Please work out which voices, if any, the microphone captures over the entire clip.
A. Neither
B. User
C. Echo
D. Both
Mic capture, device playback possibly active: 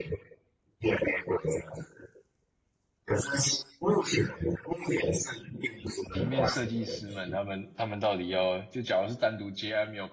D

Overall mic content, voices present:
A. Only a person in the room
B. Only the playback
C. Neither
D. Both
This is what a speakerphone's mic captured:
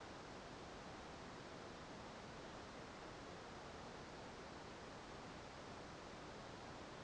C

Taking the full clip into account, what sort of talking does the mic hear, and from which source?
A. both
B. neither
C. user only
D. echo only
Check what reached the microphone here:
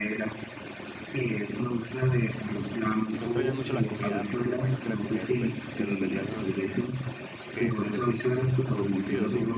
A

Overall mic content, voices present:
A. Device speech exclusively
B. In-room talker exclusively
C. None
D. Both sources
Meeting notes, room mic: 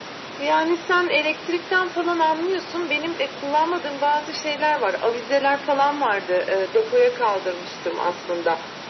A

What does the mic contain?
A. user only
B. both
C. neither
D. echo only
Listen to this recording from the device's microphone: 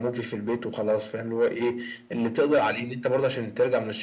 D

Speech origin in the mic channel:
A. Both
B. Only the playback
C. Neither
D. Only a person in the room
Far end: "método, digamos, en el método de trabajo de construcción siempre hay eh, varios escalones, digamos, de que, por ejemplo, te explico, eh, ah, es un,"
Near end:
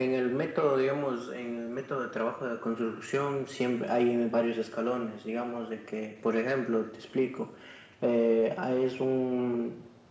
B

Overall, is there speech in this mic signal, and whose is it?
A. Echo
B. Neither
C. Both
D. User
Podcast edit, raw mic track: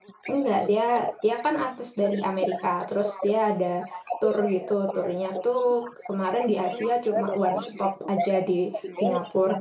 C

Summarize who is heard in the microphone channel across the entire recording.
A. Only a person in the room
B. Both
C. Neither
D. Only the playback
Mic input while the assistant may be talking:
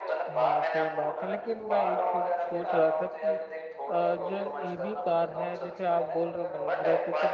B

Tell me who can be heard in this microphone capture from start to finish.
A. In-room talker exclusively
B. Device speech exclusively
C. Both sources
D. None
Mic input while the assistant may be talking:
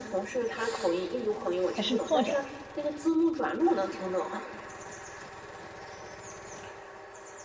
C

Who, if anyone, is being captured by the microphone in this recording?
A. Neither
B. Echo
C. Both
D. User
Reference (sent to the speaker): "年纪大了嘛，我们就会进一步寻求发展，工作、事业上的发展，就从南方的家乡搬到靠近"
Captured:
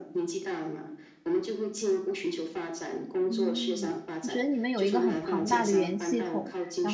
C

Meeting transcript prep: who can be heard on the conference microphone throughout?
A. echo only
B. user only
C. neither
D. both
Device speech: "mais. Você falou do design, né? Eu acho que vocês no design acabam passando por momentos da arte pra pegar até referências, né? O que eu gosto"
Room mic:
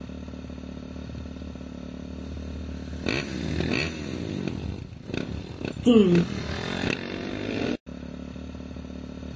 B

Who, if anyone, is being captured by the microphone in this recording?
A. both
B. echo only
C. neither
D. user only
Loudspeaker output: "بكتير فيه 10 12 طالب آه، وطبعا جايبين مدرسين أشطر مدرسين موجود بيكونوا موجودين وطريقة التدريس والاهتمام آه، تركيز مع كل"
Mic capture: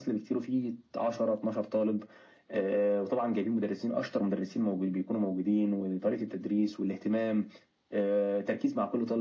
B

